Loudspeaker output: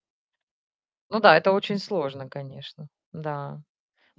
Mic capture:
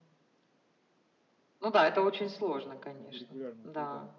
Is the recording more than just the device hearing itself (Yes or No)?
Yes